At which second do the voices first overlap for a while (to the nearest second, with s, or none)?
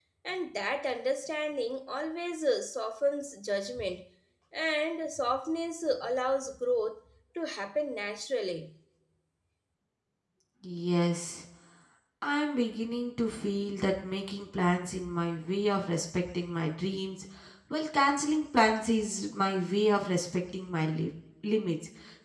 none